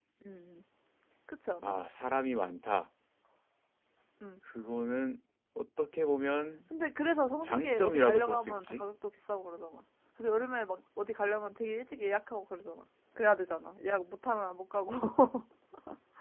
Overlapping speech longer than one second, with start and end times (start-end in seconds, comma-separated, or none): 7.4-8.8